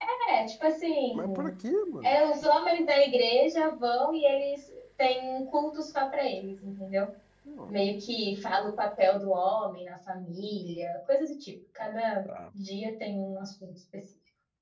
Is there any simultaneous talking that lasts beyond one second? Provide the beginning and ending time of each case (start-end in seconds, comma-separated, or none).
none